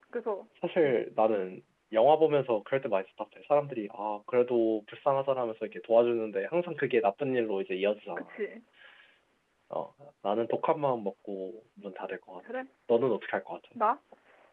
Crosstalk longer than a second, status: none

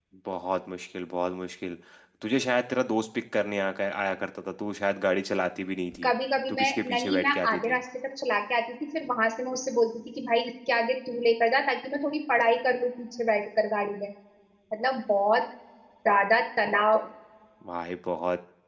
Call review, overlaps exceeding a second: present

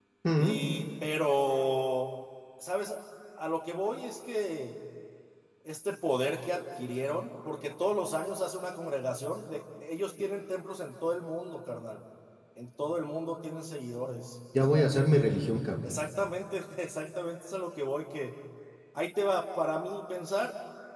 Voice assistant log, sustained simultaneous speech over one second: none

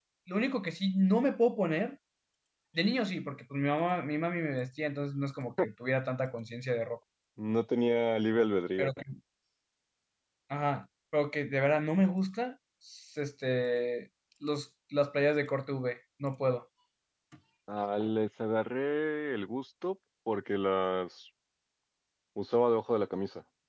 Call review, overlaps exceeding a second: none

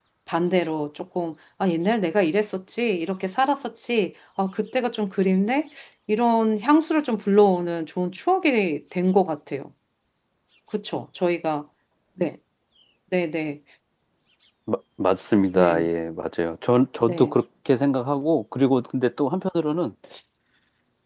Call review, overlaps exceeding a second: none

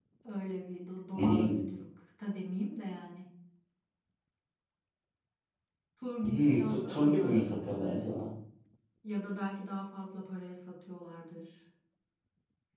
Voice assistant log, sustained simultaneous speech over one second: present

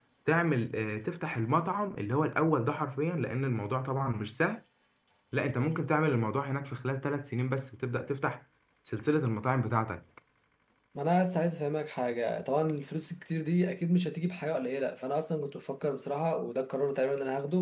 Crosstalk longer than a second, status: none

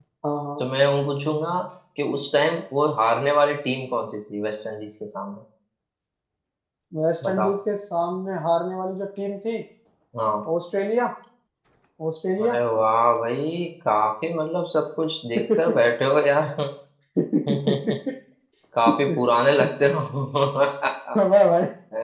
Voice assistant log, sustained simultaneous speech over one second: none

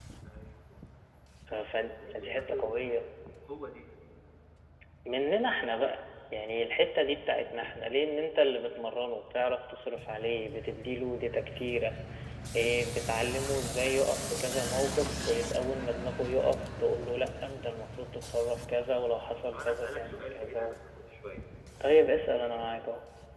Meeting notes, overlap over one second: present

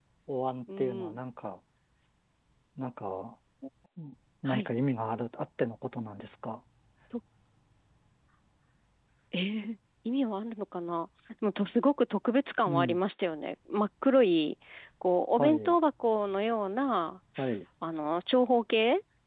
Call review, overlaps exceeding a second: none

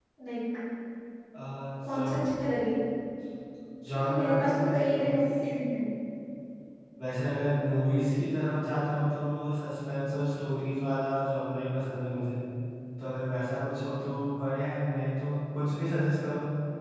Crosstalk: present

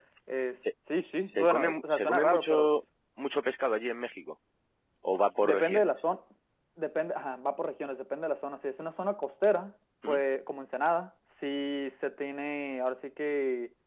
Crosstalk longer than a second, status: present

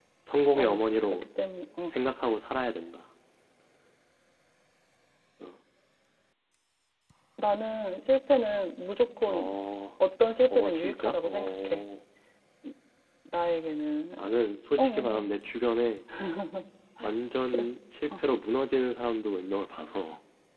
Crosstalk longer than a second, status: present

